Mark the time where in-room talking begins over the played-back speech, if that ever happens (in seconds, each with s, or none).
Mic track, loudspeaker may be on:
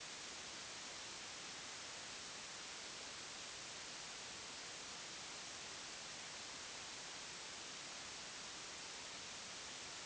none